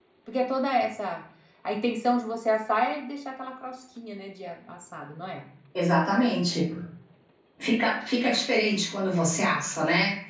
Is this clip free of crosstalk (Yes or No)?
Yes